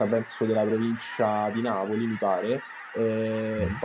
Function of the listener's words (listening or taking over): listening